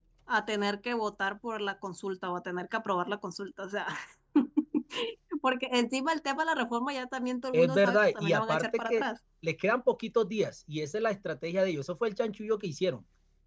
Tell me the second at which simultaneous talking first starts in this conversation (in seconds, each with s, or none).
7.5 s